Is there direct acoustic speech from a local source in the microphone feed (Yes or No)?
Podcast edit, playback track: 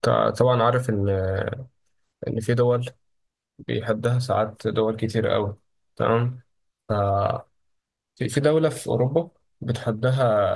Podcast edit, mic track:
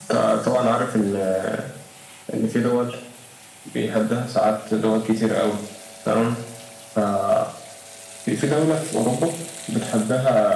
No